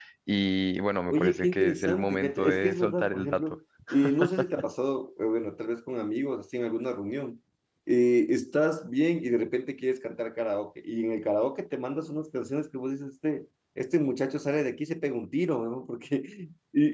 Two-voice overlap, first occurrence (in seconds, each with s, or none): 1.1 s